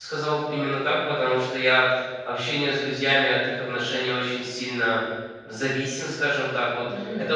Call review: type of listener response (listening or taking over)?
listening